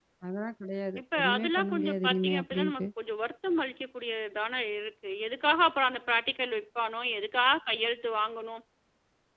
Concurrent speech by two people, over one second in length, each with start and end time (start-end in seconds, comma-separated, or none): 1.0-2.9